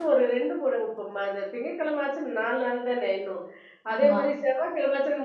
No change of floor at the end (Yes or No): Yes